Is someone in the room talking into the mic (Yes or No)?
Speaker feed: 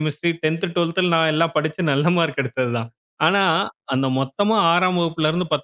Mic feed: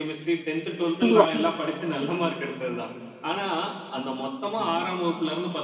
Yes